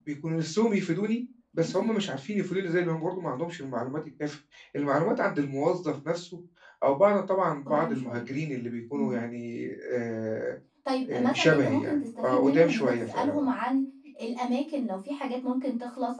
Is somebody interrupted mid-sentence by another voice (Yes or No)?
Yes